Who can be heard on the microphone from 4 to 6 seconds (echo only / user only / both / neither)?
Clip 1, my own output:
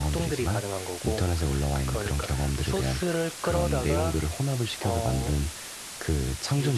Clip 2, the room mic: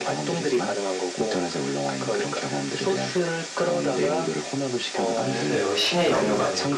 both